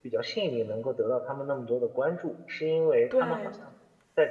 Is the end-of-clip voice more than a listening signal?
No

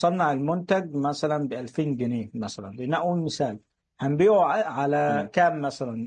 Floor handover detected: No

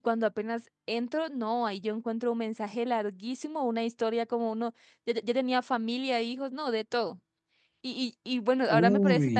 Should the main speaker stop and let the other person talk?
No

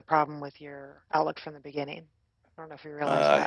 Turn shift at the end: Yes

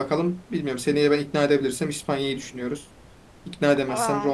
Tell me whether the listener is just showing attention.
Yes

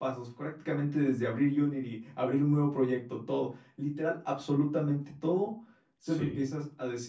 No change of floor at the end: Yes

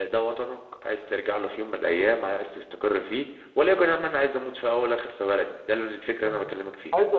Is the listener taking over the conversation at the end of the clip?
Yes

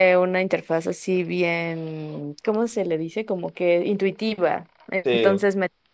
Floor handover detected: No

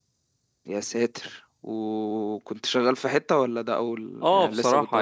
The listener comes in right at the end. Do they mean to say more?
Yes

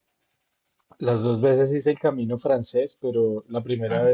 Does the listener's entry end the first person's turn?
No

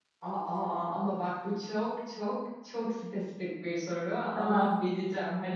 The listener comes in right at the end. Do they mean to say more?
No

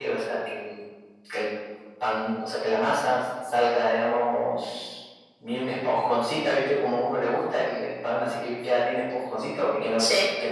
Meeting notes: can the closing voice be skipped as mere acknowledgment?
Yes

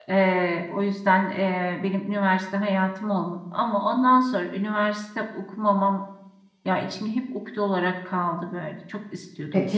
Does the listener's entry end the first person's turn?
Yes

